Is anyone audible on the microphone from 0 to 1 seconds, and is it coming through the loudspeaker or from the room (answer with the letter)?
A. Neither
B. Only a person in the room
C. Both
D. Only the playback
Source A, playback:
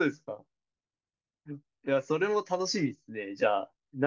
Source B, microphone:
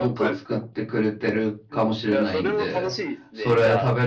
C